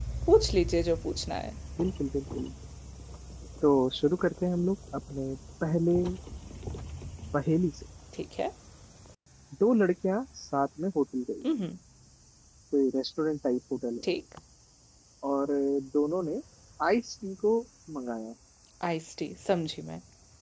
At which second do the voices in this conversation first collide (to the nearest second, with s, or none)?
none